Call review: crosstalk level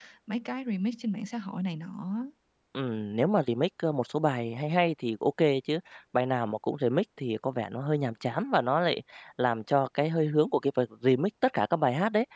none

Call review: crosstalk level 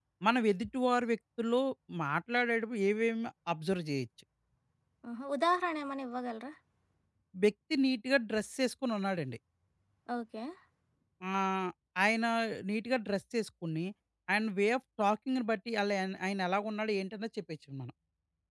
none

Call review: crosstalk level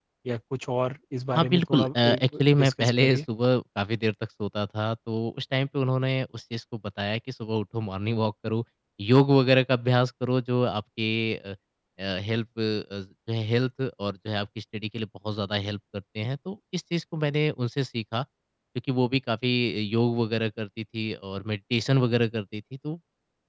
present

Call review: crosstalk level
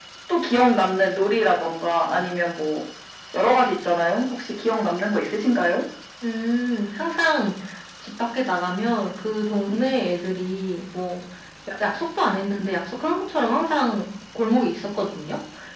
none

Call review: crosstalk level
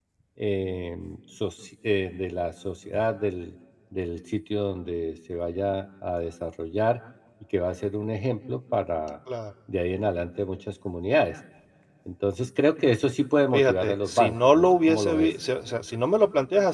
present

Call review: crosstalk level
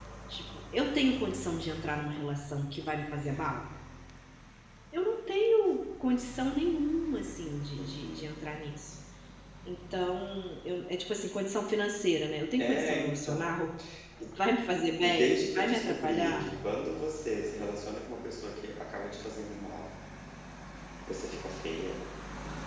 present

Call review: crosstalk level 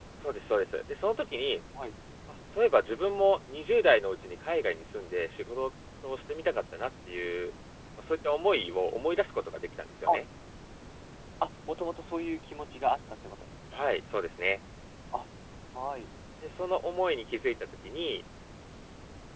none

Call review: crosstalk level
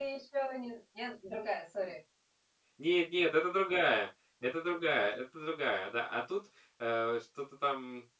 none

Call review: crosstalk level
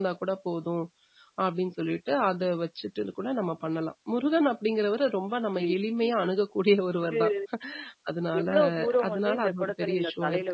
present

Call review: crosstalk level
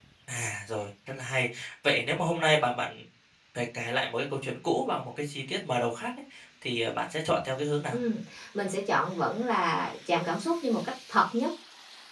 none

